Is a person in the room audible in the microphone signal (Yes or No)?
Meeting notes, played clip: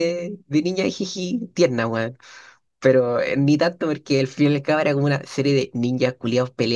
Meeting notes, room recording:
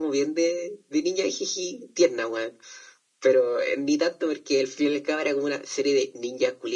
No